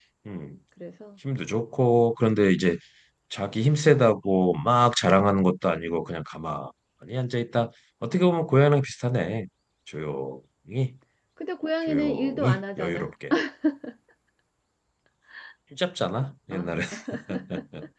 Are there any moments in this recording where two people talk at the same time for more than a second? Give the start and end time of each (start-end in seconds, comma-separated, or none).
11.9-13.1